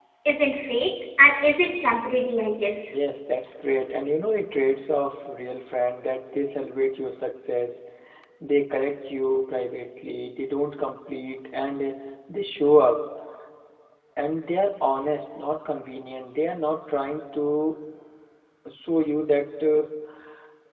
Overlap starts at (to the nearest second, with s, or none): none